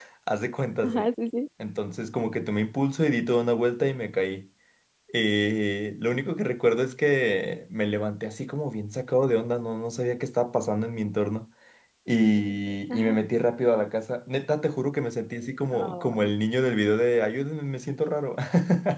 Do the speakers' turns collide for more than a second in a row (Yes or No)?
No